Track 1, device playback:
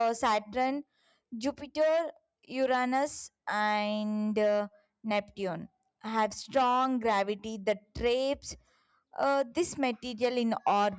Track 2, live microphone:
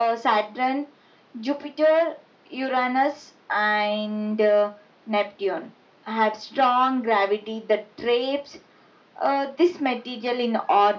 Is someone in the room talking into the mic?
No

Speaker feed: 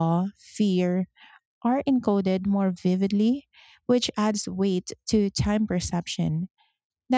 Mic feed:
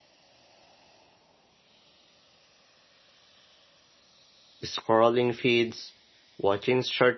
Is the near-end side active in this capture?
Yes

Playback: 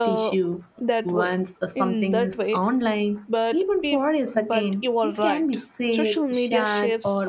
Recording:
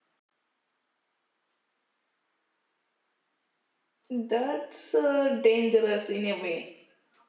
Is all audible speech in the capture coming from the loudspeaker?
No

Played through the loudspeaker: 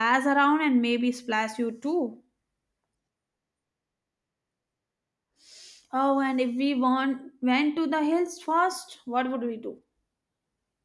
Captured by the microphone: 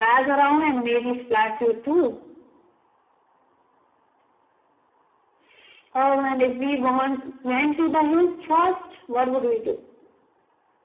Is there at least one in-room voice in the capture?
No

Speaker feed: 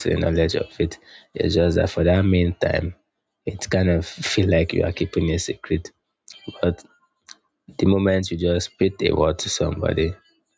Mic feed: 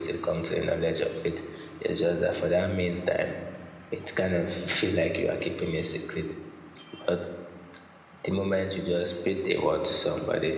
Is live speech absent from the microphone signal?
Yes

